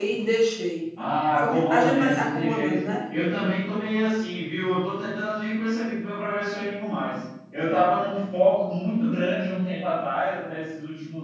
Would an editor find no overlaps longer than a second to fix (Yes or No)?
No